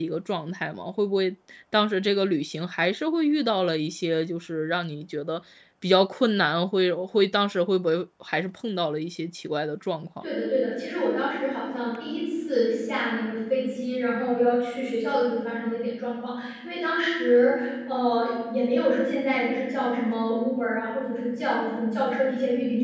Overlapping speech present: No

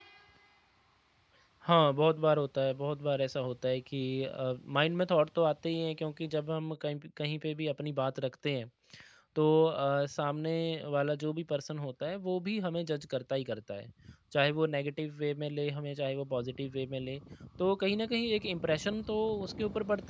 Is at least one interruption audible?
No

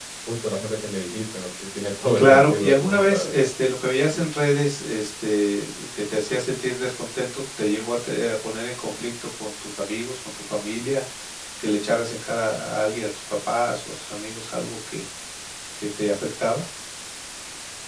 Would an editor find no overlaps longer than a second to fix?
No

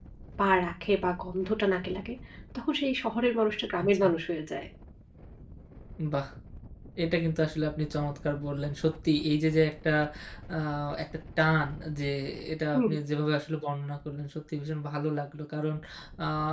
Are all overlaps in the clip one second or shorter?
Yes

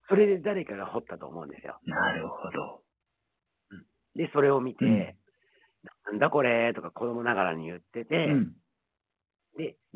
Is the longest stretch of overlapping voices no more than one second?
Yes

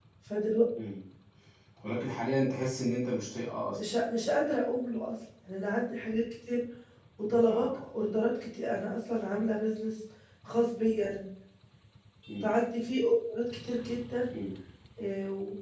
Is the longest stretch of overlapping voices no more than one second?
Yes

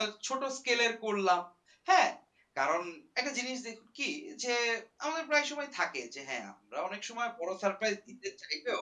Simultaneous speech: No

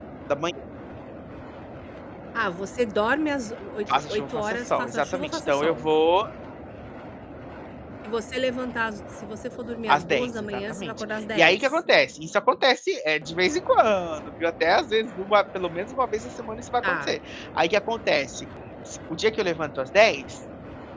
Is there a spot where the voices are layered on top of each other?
Yes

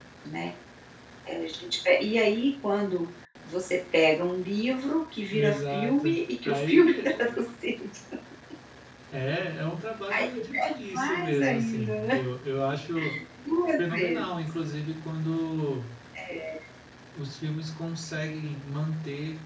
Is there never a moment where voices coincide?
No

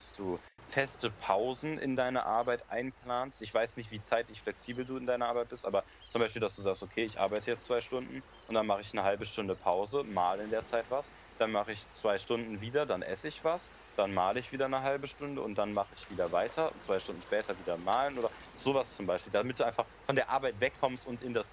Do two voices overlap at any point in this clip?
No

